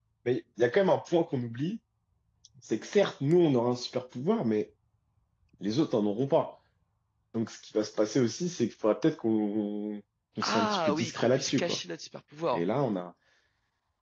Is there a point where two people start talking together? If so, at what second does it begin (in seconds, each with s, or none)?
10.4 s